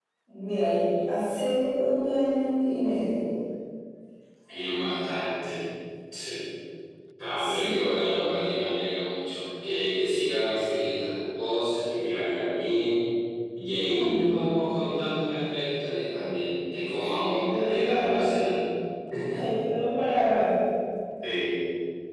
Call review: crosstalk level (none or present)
present